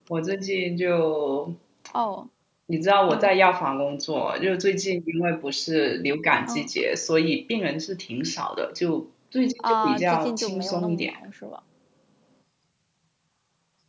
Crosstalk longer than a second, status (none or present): present